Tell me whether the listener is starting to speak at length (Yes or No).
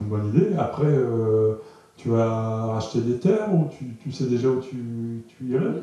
Yes